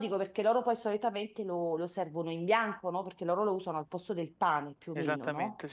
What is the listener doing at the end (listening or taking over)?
taking over